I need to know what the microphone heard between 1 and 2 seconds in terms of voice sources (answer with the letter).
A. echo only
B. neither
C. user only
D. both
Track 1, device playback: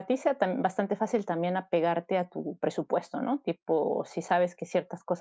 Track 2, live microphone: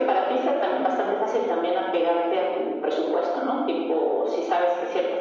A